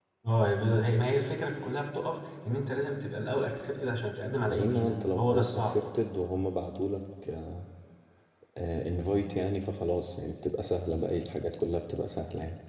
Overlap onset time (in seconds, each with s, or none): 4.5 s